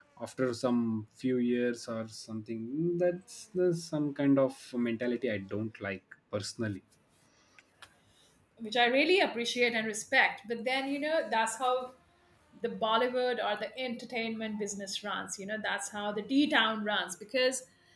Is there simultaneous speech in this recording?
No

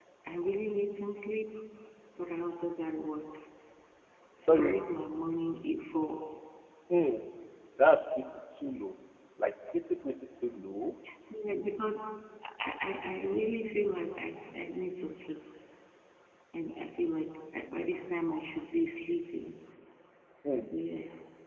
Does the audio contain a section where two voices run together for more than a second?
No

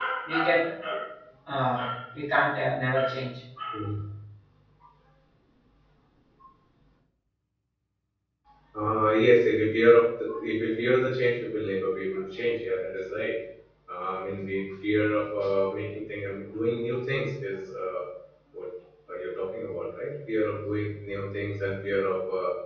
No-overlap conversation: Yes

